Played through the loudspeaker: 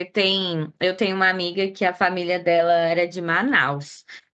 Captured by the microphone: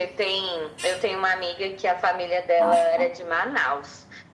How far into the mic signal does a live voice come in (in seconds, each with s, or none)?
2.6 s